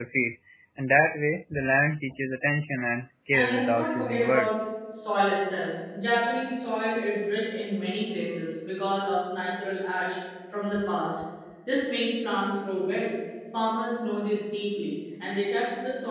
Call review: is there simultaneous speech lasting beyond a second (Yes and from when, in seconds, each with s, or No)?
Yes, from 3.3 s